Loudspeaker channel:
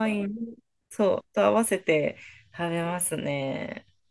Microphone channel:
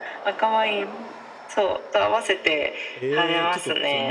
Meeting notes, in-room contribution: present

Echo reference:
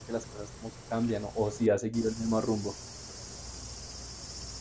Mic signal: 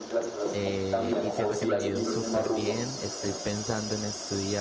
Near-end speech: present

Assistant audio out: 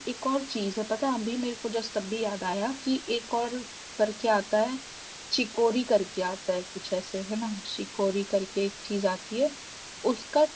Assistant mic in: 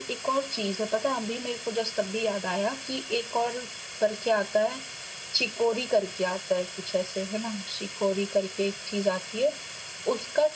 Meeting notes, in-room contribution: none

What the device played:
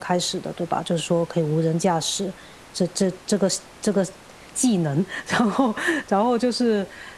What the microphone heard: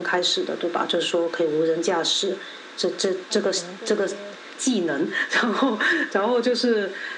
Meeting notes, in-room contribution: present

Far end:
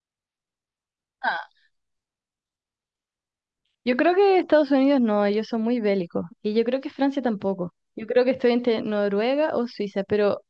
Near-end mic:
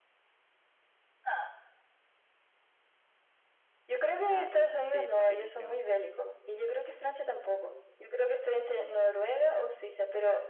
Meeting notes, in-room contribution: present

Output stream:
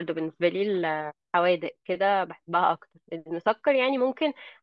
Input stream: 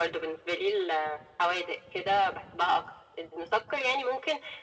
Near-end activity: none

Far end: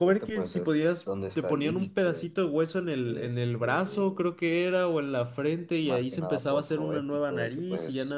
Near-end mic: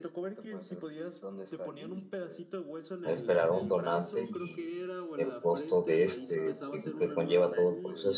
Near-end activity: present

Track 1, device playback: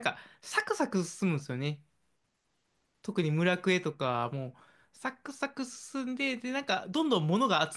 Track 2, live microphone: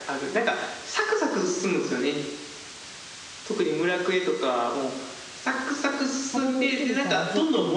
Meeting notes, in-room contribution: present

